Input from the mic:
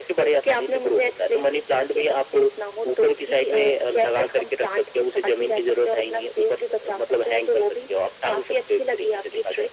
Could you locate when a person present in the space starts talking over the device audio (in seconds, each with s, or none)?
none